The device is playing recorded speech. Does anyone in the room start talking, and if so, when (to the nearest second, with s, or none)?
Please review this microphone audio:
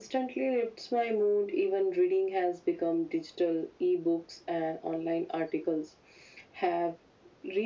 none